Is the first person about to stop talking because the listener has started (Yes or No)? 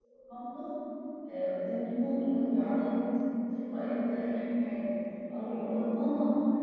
No